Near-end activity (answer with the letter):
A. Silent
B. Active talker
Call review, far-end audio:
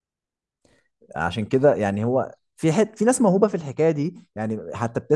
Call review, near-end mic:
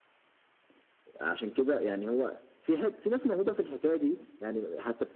A